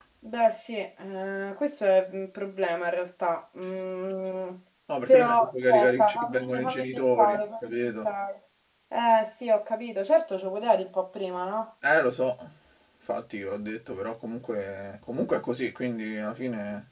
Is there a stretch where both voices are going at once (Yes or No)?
Yes